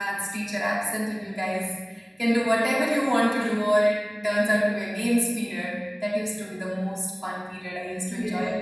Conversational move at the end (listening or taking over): taking over